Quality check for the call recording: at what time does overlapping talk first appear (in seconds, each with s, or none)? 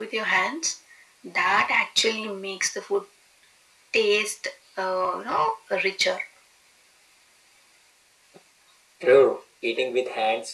none